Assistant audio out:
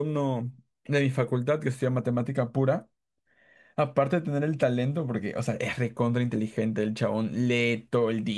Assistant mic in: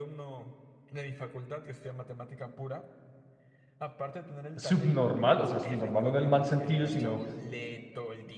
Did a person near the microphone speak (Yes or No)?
Yes